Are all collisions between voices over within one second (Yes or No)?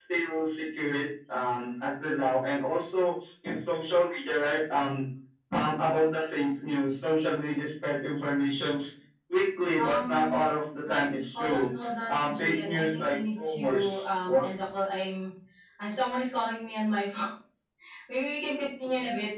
No